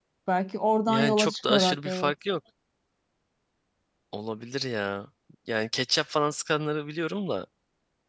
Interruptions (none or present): present